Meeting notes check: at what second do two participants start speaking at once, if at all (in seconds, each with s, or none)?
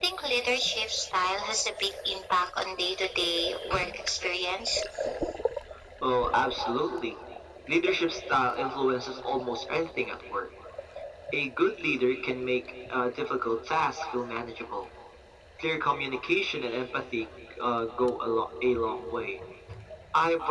none